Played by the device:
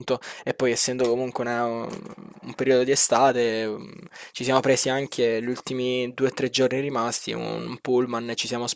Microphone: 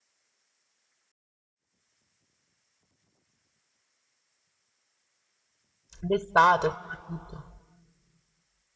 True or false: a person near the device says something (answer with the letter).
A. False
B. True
B